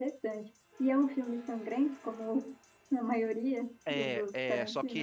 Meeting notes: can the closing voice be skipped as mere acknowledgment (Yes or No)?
No